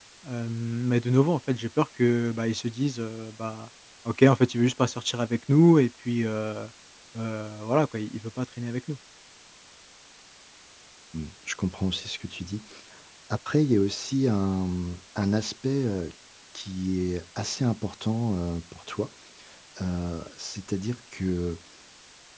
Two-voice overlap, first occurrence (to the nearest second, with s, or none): none